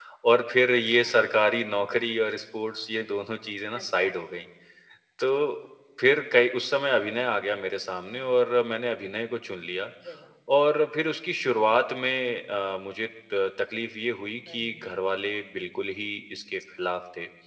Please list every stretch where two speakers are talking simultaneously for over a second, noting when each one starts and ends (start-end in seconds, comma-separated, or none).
none